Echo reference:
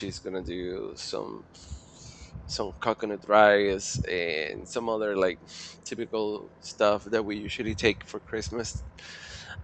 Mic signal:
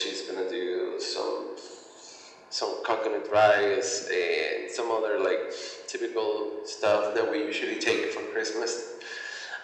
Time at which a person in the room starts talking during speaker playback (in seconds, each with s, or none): none